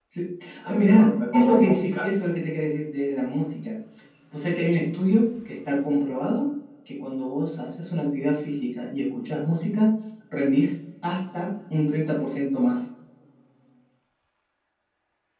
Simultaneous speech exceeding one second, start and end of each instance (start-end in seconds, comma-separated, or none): 0.6-2.0